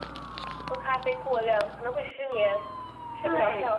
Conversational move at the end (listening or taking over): taking over